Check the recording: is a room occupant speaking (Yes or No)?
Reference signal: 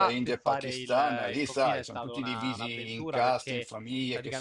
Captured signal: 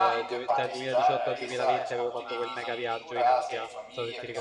Yes